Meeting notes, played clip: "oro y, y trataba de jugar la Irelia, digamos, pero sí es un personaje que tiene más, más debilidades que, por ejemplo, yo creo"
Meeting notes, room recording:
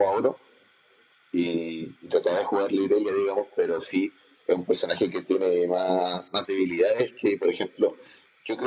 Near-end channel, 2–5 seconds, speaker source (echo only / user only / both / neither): echo only